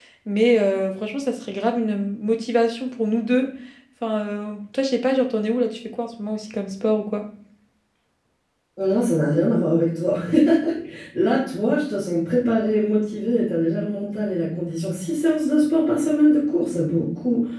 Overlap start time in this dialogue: none

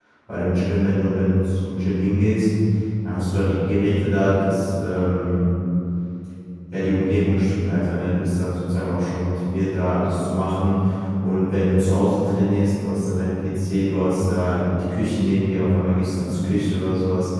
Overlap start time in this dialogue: none

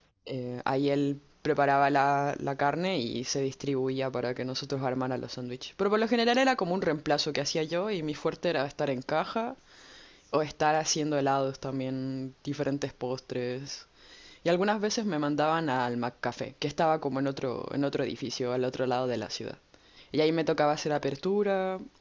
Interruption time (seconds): none

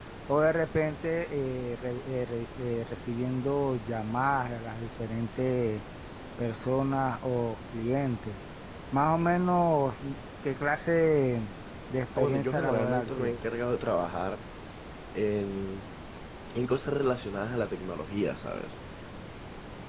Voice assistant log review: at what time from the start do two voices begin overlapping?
12.2 s

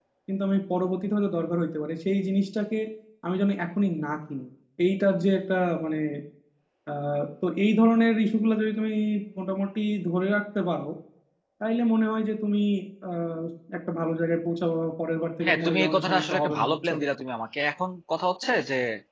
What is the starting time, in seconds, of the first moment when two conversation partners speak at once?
15.5 s

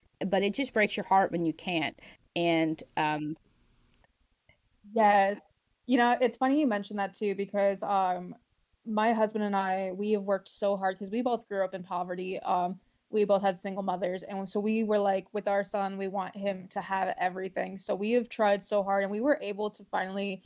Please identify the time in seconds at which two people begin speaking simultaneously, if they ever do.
none

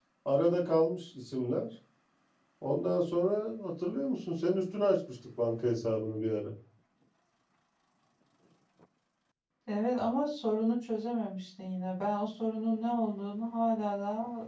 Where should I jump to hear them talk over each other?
none

